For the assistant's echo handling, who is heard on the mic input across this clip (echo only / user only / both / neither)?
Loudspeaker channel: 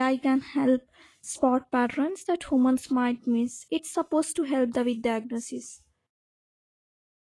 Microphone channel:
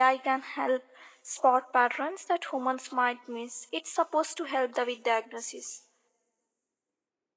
echo only